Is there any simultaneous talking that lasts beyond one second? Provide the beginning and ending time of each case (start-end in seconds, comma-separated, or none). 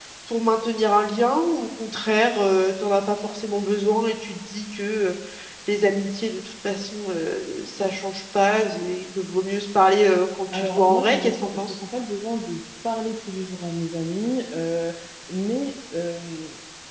10.5-11.8